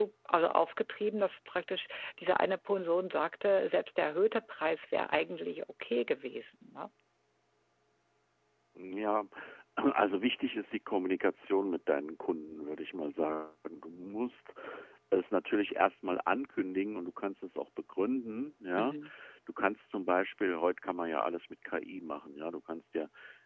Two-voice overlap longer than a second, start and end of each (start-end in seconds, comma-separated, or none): none